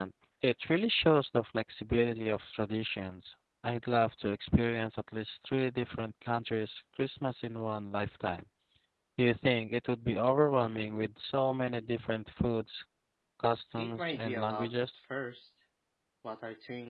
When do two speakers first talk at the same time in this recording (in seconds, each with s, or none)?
13.8 s